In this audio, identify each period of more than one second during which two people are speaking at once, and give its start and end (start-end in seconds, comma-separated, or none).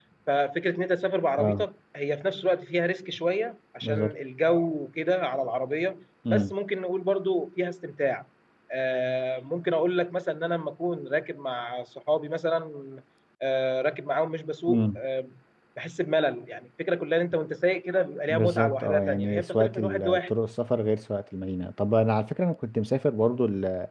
18.3-20.3